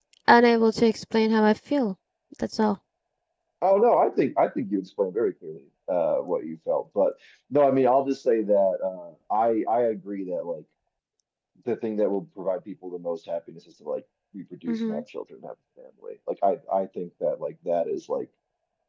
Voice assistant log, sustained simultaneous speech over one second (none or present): none